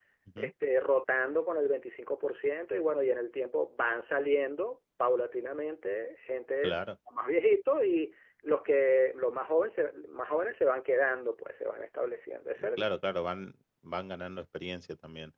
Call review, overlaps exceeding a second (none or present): none